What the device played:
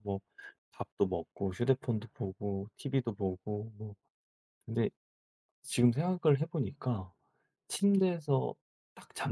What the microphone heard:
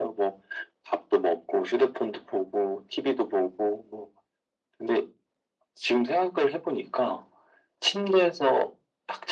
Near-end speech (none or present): none